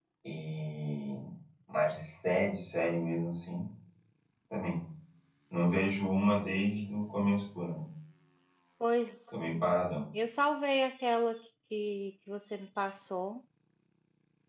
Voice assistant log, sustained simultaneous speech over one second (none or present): none